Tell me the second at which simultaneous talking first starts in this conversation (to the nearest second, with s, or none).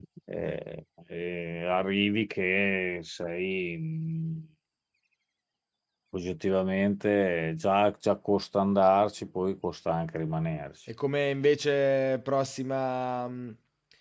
none